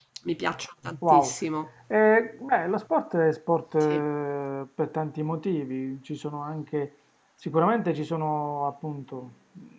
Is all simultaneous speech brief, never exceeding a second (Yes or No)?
Yes